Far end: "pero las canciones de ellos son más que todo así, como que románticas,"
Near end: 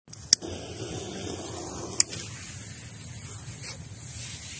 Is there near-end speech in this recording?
No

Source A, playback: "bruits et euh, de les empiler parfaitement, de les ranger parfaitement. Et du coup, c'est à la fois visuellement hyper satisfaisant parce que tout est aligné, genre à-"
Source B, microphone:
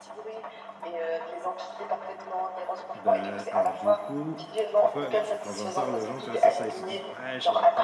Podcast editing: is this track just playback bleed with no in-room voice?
No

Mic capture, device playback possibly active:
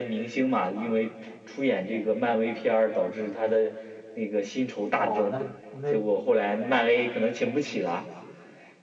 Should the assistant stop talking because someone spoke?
Yes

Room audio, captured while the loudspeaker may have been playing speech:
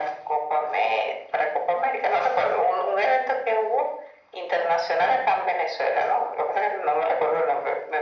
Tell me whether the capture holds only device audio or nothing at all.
Yes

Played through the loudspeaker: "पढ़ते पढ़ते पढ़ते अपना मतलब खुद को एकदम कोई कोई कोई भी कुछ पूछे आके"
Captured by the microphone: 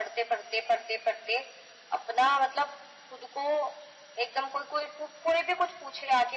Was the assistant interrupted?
No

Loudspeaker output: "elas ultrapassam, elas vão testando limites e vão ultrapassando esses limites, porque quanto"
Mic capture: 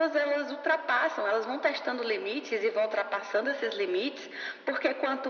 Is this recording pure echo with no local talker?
Yes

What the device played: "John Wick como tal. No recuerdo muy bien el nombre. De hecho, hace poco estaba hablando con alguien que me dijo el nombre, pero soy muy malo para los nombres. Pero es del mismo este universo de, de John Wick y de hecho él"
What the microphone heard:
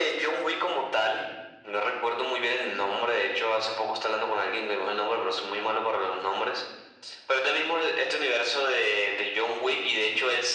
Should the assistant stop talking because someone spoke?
No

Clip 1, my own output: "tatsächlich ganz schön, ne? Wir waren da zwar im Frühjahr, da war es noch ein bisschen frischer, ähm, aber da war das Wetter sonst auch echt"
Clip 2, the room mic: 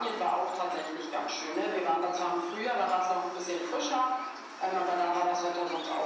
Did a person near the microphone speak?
No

